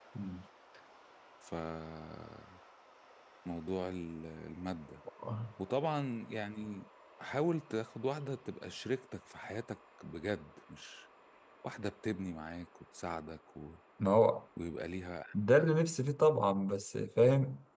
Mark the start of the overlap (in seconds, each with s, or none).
none